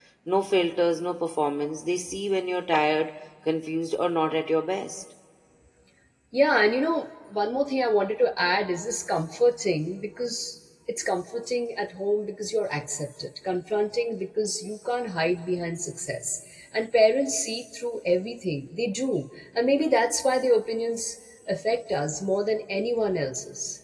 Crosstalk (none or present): none